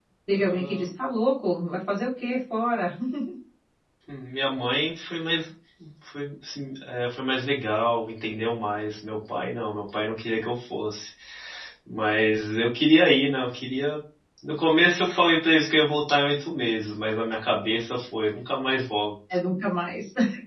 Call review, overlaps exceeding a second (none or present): none